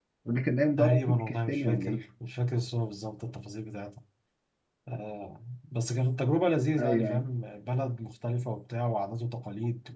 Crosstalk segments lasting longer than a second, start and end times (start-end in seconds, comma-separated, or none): 0.8-2.0